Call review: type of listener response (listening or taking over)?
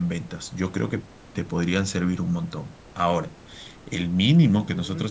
listening